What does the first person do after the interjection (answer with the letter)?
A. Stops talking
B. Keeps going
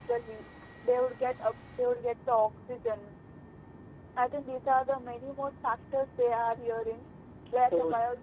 B